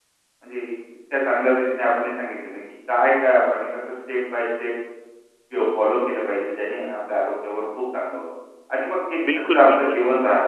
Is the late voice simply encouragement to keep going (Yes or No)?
Yes